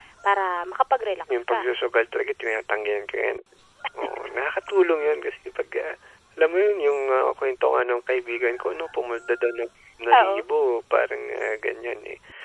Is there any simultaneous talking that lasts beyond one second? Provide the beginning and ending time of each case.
none

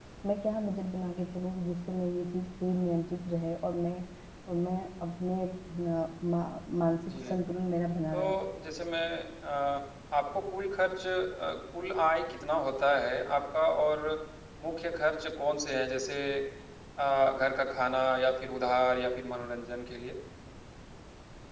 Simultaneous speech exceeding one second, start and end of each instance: none

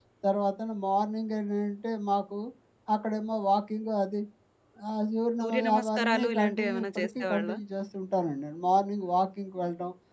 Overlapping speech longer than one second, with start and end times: 5.4-7.6

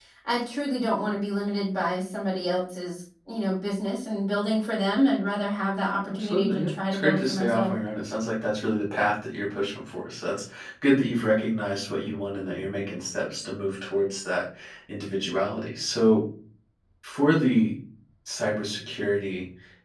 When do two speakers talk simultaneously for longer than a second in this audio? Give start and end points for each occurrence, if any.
6.2-7.7

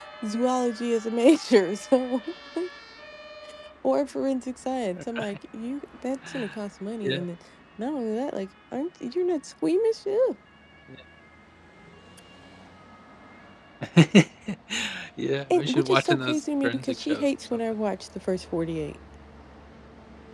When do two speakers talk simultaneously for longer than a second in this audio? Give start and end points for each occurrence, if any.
15.5-17.6

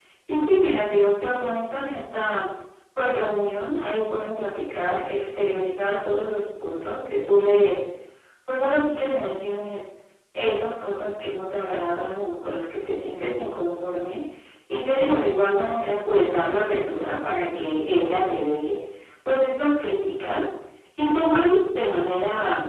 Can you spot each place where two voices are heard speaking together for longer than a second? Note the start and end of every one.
none

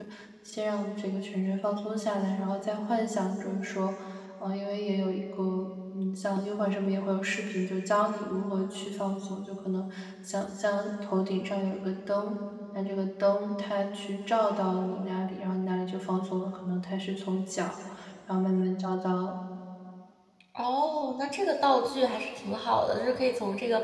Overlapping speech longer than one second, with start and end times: none

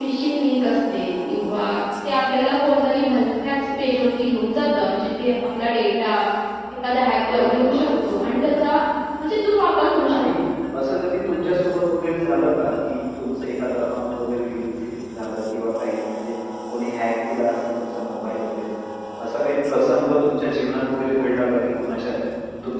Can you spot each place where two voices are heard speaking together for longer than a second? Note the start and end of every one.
7.3-8.6

